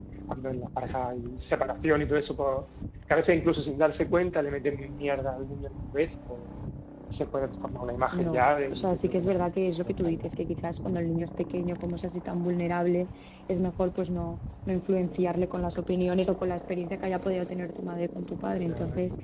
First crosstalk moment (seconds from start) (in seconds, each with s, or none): 8.1 s